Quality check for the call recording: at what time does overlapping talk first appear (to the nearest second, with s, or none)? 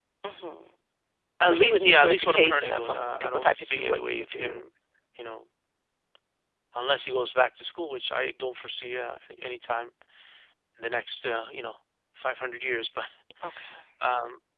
1 s